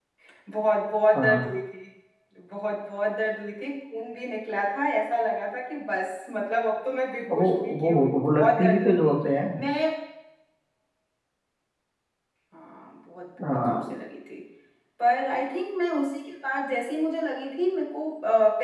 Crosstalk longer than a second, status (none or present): present